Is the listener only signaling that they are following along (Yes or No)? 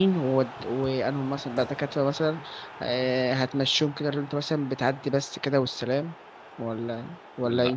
No